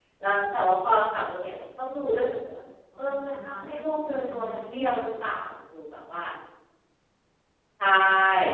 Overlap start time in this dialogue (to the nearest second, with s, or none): 3 s